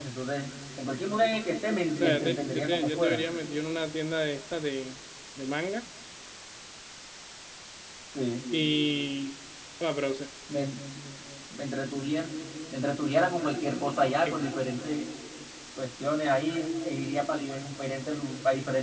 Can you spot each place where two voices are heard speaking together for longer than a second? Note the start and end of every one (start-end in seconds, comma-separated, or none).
2.0-3.2